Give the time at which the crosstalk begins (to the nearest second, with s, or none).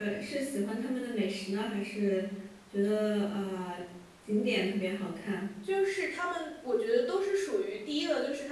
none